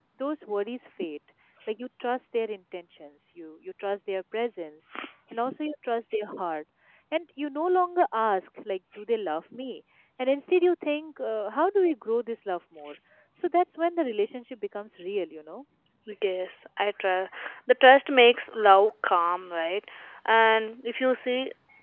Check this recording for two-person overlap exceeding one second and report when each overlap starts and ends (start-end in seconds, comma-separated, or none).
none